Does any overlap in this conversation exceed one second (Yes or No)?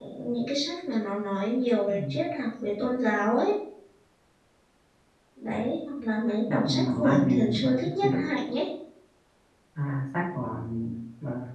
Yes